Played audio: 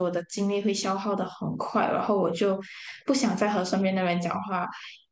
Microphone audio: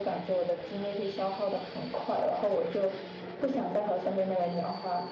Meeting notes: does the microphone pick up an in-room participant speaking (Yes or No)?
No